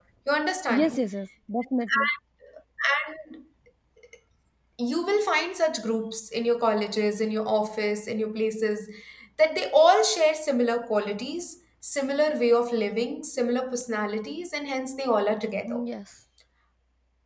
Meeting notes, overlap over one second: none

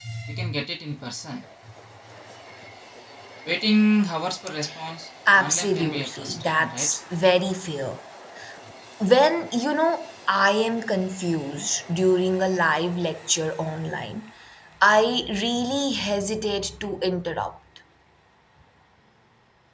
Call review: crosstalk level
present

